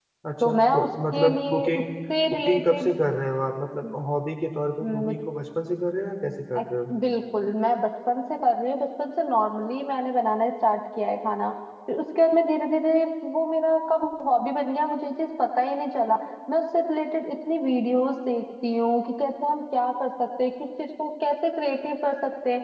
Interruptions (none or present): present